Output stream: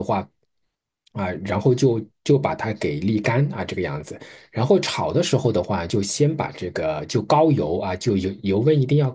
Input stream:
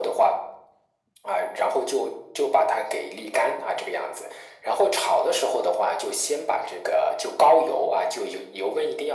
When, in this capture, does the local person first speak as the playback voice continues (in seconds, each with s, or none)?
none